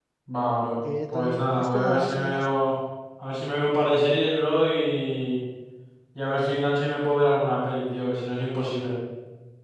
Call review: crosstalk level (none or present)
present